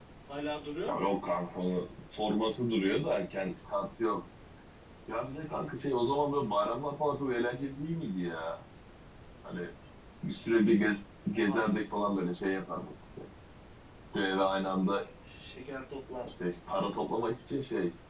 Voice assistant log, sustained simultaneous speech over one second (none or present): none